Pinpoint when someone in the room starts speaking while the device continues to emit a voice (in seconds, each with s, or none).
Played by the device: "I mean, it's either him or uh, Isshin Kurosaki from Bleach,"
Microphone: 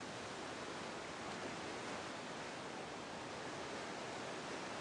none